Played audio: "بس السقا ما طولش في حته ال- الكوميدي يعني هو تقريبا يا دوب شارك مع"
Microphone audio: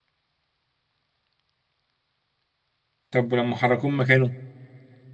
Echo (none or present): none